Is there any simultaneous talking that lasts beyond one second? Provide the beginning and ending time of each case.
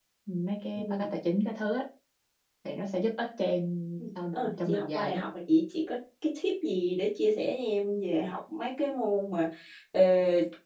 4.0-5.2

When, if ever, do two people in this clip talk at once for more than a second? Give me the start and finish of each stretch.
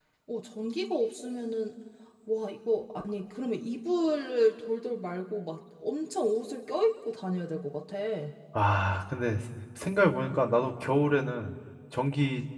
none

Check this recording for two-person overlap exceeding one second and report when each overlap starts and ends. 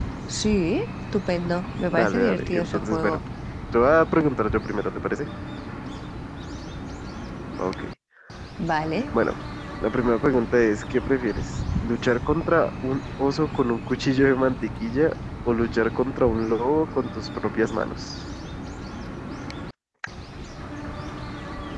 1.9-3.2

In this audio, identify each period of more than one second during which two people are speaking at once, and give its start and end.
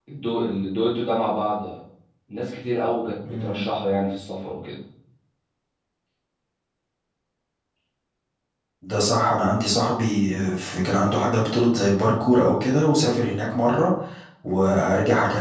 none

